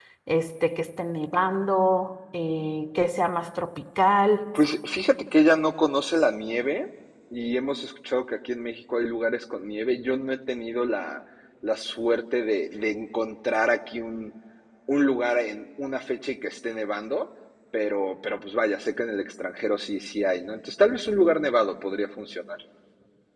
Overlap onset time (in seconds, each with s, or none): none